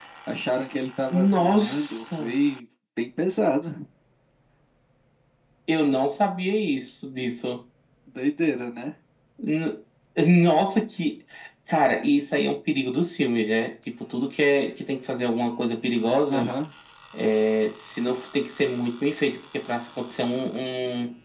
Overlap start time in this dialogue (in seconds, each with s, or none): 1.1 s